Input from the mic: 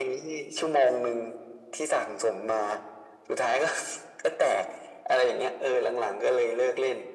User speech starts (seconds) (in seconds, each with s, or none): none